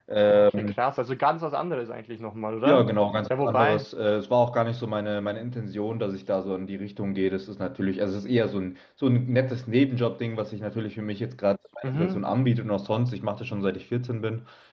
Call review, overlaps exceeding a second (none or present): none